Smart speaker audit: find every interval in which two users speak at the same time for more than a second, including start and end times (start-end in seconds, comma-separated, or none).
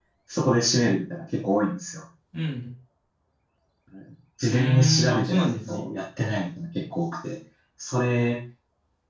4.5-5.9